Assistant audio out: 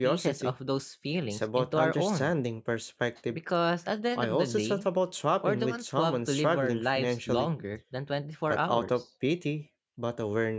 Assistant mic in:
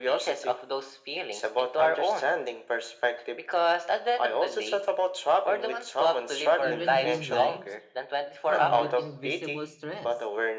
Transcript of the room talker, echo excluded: Even dream lives come with invisible stress.

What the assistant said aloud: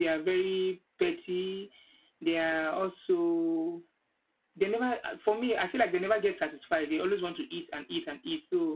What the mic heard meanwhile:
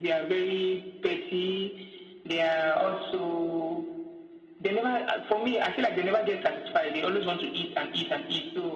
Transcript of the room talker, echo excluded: none

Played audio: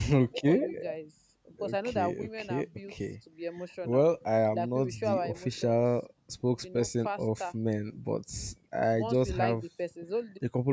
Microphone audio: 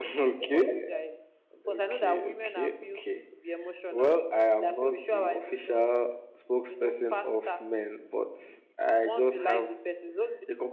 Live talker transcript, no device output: none

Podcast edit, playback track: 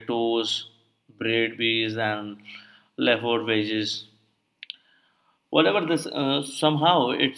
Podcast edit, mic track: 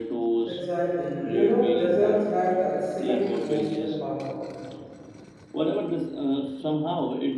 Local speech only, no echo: Exactly. You know, desserts have that same emotional power.

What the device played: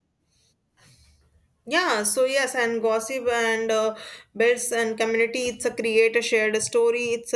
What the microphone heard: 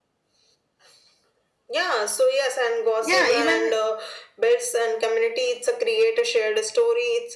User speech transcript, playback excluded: yeah, even

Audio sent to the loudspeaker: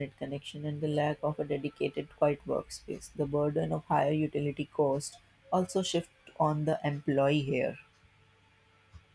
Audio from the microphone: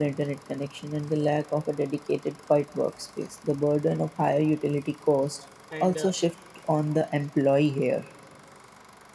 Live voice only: And uh,

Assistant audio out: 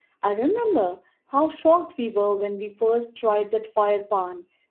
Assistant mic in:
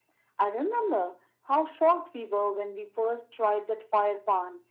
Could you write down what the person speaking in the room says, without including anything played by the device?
none

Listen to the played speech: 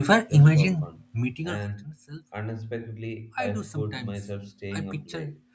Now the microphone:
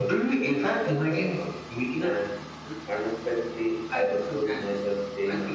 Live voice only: none

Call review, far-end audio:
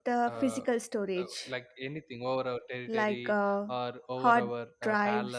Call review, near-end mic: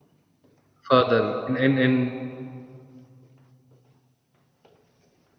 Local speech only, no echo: further in in, in

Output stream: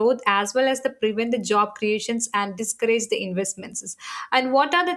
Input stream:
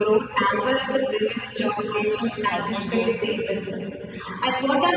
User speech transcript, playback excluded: uh, are measured

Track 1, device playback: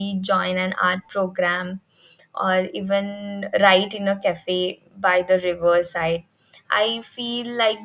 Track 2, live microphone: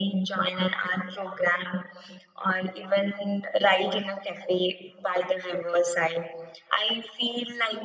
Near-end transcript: none

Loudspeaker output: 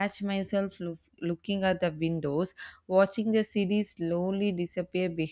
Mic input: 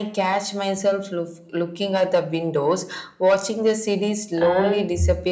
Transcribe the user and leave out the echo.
And

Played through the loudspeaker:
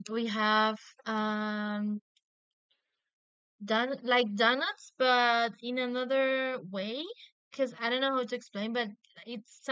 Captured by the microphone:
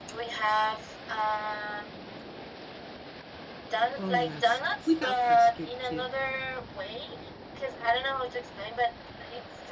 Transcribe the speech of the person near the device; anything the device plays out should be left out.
Oh yes, we have custard too.

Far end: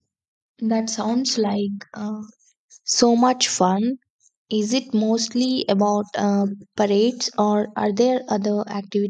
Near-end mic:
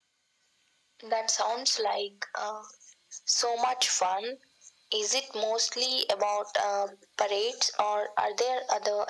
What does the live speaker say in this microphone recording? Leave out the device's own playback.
none

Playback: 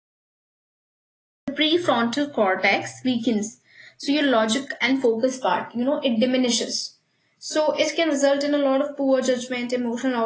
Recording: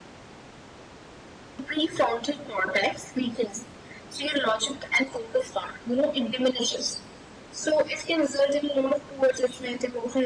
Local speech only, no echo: none

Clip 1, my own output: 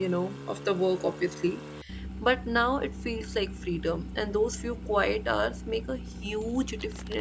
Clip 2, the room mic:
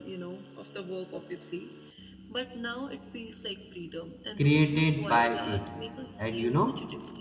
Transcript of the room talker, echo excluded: created by it and you know

